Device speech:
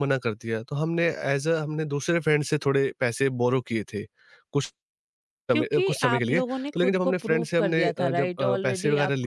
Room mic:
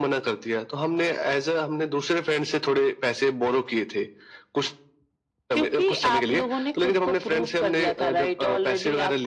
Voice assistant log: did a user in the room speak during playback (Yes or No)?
No